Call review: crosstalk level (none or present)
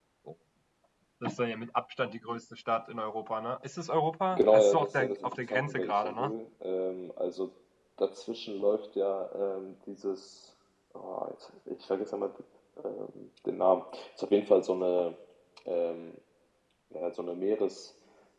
present